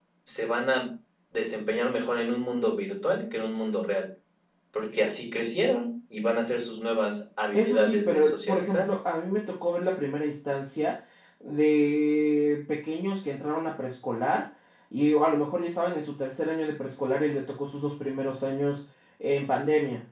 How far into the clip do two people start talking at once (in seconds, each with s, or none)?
7.5 s